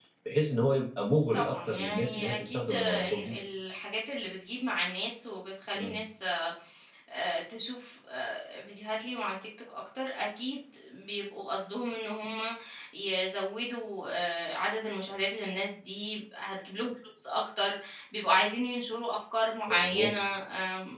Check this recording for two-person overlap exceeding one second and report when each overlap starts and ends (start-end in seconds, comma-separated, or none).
1.3-3.4